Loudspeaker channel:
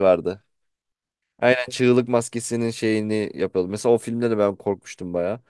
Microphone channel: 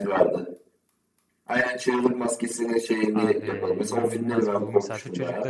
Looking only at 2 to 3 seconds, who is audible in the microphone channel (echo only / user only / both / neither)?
echo only